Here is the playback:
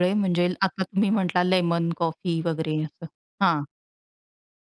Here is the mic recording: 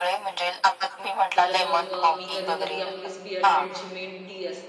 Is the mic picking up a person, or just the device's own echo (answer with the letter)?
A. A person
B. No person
A